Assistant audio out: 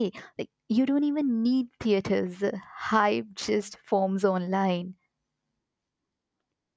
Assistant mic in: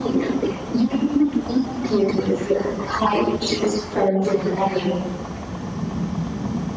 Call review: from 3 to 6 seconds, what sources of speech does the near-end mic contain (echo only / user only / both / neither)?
echo only